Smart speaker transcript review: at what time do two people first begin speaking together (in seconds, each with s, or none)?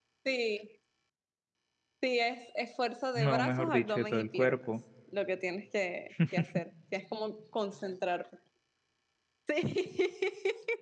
3.1 s